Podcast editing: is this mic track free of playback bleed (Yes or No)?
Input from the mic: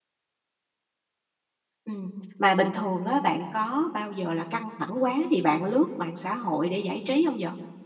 Yes